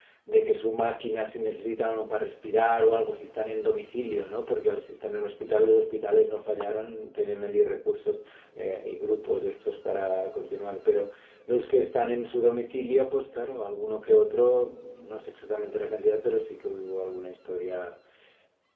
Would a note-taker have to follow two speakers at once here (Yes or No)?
No